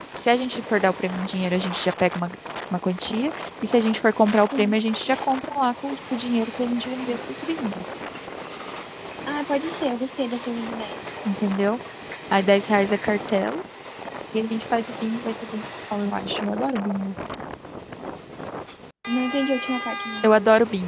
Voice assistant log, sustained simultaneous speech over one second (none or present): none